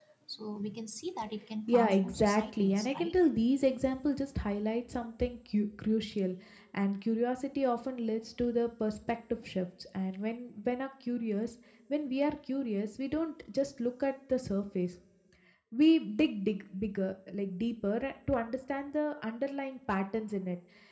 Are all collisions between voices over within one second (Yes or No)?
No